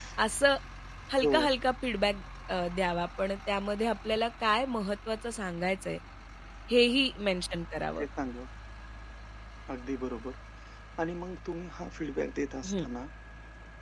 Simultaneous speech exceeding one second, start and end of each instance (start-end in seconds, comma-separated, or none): none